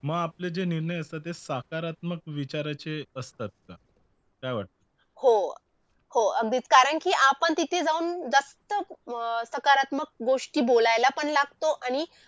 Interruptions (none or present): none